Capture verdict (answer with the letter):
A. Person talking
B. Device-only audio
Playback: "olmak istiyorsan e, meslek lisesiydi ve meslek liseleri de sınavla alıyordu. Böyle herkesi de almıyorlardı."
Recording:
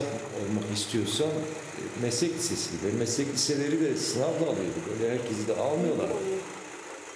A